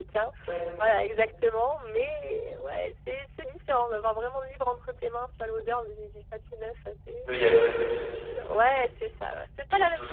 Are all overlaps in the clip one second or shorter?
Yes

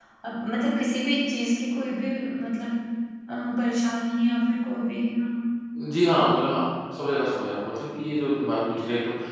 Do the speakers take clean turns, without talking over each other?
Yes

